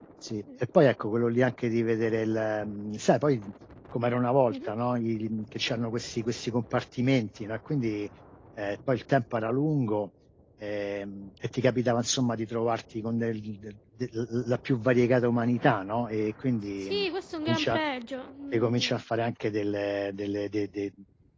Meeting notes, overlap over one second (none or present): none